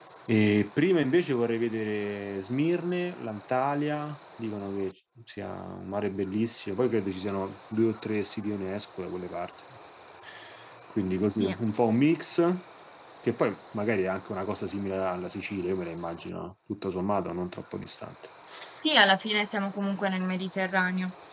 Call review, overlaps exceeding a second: none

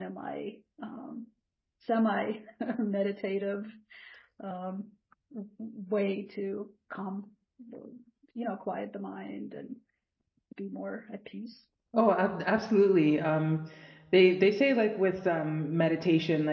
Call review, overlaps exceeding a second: none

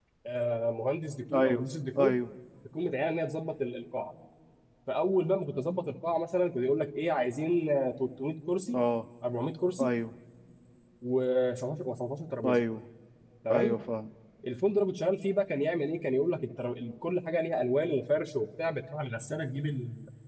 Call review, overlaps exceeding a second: none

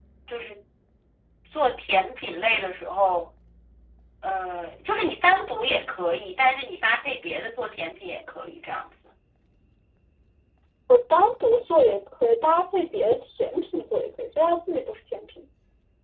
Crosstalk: none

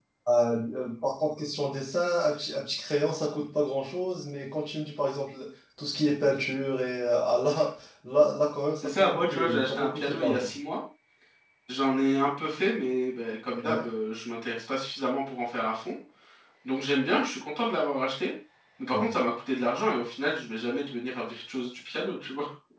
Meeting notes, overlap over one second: present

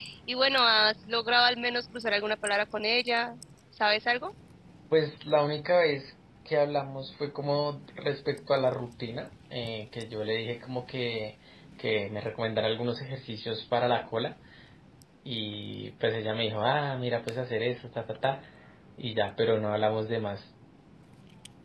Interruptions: none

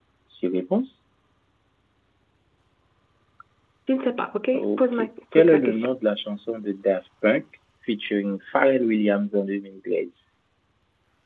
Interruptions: present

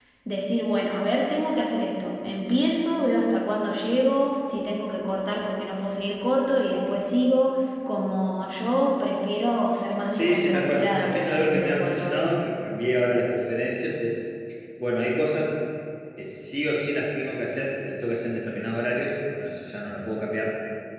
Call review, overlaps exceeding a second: present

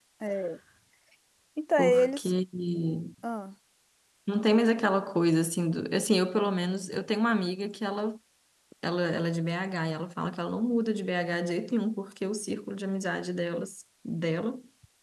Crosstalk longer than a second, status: none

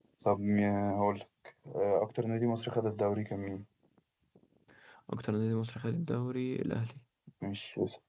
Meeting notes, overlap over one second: none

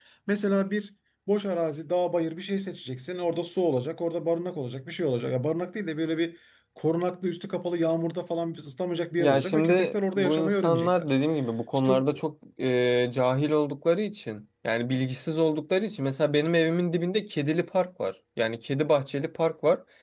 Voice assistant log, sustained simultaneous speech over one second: present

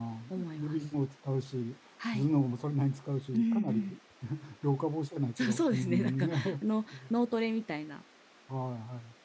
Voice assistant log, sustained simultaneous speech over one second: present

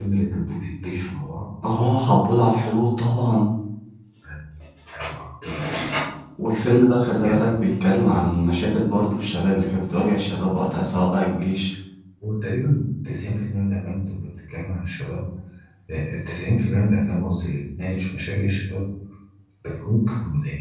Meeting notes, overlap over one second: none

